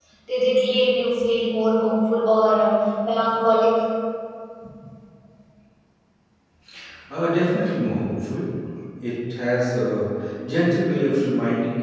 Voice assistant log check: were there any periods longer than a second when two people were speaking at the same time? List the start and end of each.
none

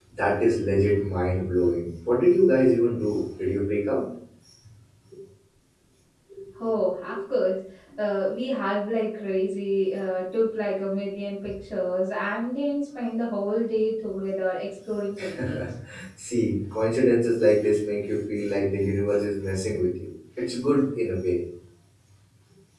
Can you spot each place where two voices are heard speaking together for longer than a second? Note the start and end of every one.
none

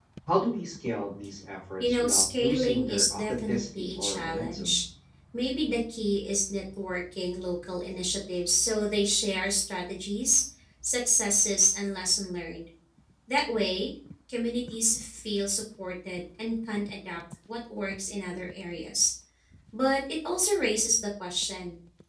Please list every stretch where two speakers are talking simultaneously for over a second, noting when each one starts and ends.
1.8-4.8

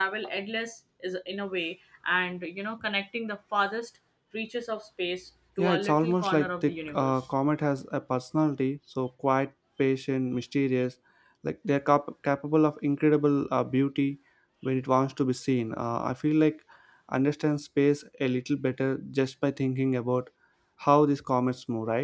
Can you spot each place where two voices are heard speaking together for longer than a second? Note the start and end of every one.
5.6-7.3

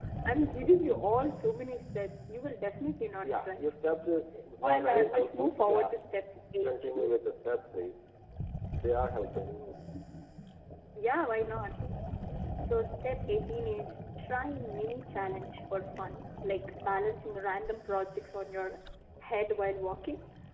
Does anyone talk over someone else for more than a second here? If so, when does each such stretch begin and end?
4.6-5.9

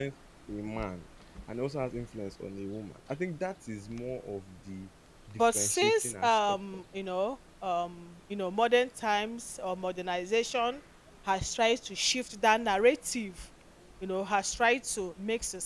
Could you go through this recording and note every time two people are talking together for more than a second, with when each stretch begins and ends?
5.4-6.8

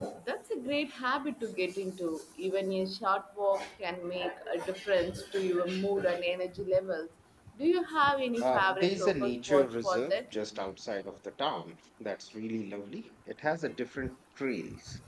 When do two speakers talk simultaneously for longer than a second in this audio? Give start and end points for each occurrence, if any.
8.4-10.2

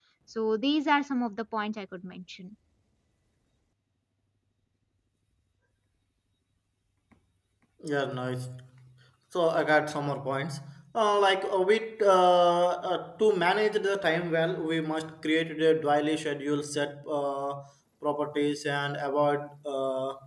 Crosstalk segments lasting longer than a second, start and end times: none

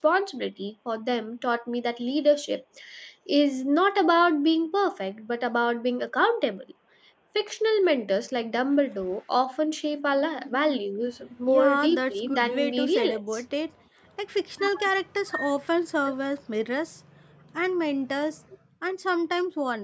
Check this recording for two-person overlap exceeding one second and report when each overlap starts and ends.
11.5-13.4

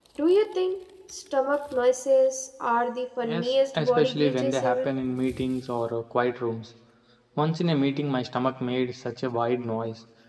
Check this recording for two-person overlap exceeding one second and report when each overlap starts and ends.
3.2-4.9

